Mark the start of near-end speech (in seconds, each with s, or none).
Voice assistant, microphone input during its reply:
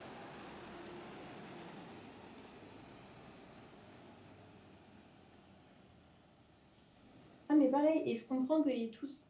7.5 s